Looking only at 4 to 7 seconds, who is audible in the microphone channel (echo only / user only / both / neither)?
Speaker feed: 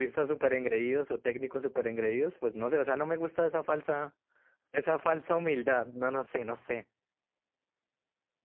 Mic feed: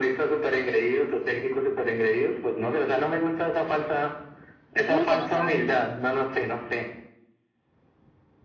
both